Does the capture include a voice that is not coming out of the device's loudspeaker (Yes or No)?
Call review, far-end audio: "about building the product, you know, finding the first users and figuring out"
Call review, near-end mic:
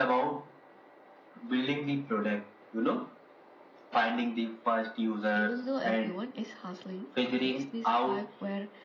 Yes